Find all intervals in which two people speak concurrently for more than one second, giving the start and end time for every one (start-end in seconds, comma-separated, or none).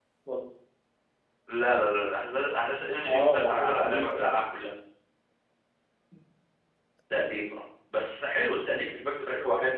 3.0-4.3